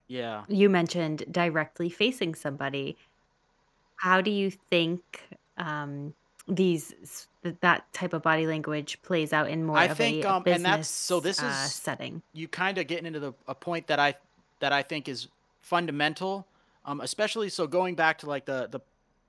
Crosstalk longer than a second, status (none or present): present